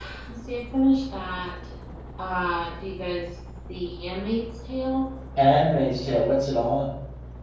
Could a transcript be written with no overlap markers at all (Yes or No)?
Yes